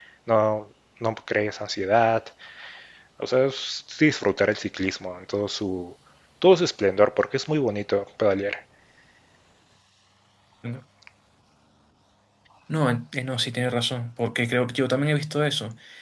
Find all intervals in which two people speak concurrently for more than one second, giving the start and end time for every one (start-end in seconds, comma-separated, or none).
none